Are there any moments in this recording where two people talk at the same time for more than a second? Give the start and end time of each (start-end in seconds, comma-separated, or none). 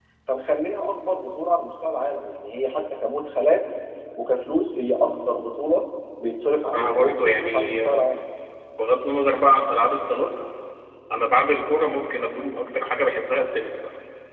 6.6-8.0